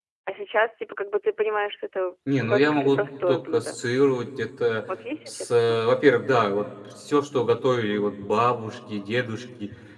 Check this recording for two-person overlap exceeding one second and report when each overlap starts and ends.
2.4-3.8

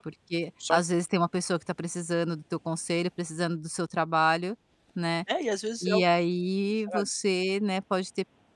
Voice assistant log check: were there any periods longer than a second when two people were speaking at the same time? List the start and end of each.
none

